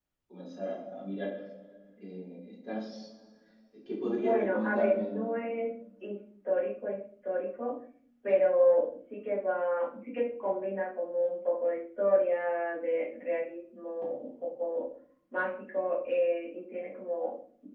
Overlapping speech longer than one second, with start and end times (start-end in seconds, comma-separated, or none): 4.0-5.3